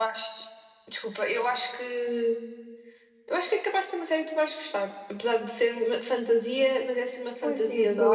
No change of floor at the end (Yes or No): No